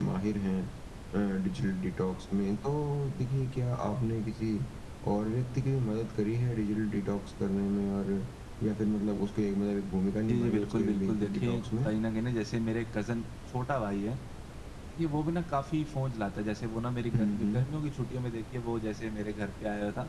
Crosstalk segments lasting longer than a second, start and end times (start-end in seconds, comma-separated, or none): 10.3-11.9